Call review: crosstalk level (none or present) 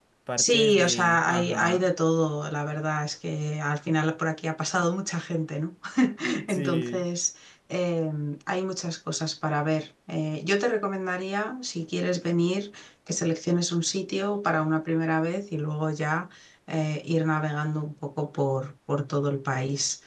present